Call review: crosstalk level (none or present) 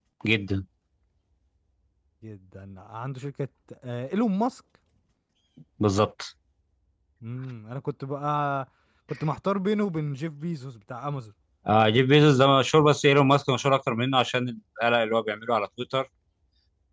none